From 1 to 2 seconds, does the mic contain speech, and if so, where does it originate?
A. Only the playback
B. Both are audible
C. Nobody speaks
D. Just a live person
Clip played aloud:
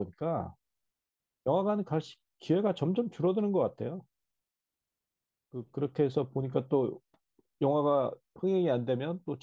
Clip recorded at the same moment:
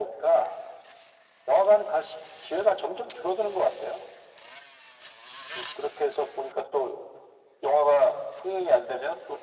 A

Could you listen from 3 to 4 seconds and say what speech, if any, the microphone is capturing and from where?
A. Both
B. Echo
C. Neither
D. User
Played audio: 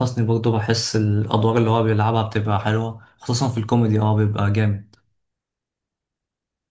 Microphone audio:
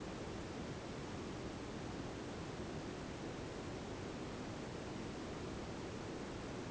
C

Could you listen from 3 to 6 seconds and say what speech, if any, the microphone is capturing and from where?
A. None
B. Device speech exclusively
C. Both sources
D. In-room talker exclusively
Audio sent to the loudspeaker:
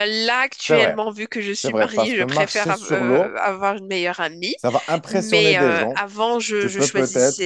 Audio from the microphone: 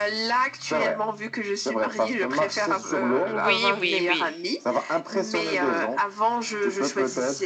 C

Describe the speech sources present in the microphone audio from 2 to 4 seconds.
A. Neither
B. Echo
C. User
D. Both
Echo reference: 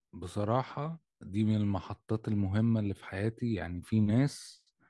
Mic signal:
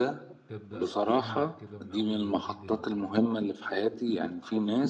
D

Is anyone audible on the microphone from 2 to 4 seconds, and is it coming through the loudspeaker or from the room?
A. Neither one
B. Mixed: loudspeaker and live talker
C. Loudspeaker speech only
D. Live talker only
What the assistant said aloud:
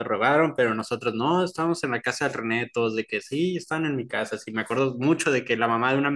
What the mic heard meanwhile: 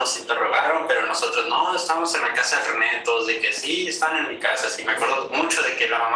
C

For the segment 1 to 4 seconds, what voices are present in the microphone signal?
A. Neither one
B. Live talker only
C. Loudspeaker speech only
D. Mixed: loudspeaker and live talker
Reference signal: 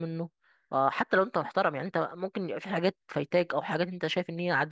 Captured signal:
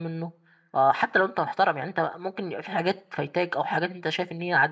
C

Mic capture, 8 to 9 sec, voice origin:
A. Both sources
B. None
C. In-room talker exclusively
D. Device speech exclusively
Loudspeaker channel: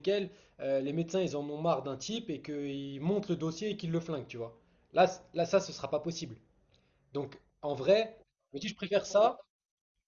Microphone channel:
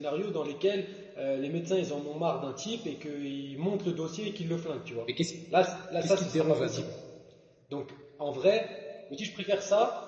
D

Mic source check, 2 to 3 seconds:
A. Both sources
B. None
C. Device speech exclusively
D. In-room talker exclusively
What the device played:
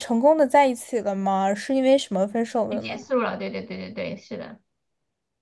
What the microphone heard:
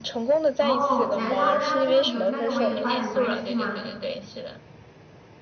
A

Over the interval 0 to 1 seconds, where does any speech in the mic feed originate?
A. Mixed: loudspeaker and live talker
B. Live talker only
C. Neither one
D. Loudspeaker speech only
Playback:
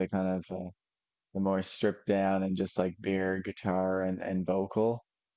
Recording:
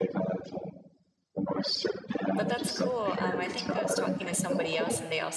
D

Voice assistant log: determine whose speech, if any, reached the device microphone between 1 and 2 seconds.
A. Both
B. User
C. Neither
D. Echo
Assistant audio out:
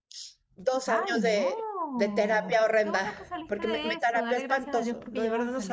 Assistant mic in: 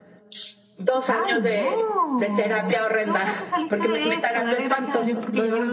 D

